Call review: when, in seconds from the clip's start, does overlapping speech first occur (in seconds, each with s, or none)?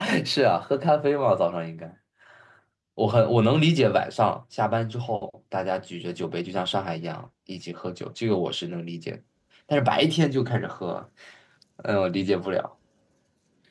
none